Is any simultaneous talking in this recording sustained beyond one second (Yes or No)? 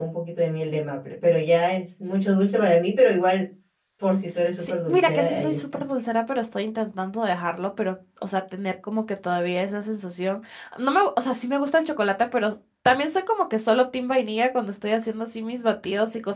Yes